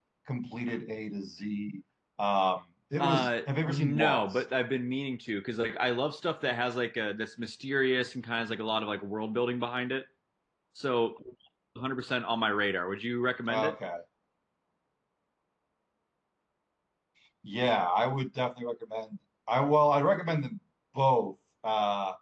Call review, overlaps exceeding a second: present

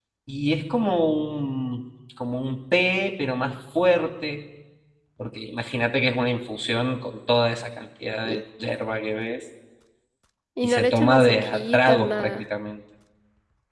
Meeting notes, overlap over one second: present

